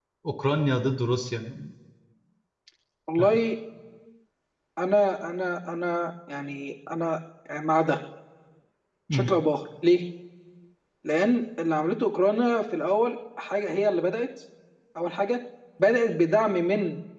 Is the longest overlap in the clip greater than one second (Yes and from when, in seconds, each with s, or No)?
No